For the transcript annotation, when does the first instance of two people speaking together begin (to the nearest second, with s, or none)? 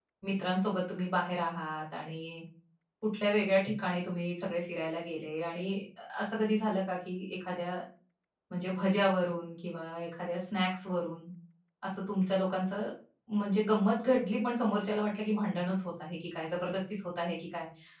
none